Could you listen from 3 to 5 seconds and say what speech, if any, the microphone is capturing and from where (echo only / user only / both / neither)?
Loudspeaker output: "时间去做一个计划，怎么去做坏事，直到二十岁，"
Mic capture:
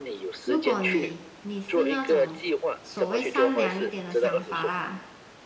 both